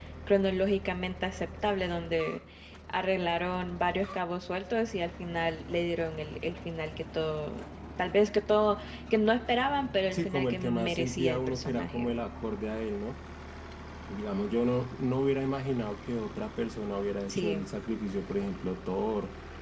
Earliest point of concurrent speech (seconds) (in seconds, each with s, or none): 10.1 s